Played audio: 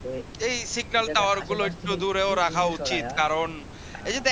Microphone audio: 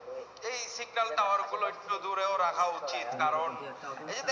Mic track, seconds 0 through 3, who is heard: echo only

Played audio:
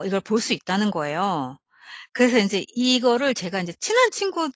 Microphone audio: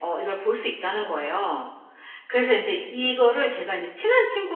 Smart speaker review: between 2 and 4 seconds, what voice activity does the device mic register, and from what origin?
echo only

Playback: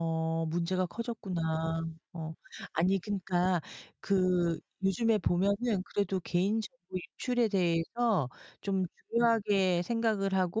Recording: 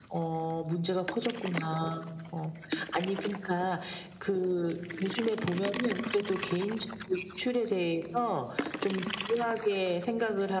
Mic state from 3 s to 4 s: echo only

